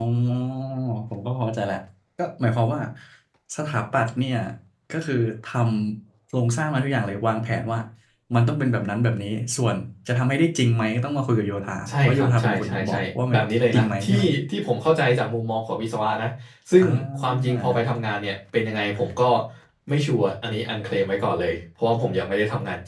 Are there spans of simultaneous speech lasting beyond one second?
Yes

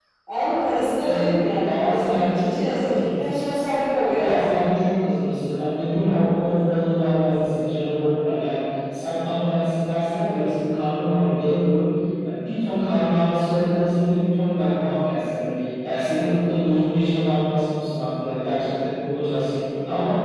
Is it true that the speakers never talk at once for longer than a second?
No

